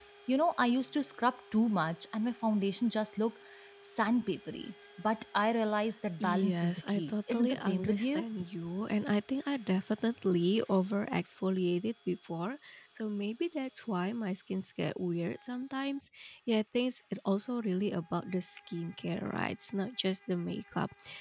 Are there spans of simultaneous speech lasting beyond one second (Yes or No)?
Yes